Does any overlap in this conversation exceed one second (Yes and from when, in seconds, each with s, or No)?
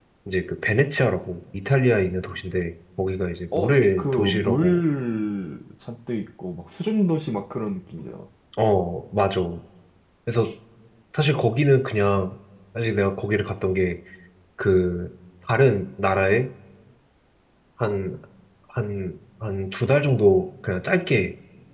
Yes, from 3.5 s